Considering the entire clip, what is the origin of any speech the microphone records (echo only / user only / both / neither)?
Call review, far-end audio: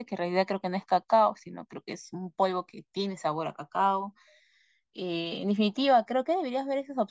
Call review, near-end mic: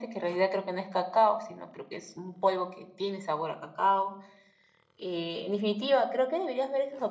echo only